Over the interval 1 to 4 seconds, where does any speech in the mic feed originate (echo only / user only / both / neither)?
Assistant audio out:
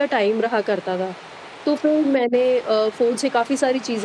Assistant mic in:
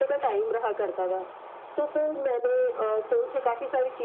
echo only